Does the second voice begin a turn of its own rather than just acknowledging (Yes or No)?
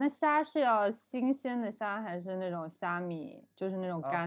Yes